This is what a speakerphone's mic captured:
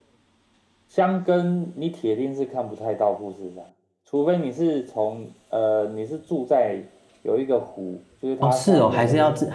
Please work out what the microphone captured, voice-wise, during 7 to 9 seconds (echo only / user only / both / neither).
both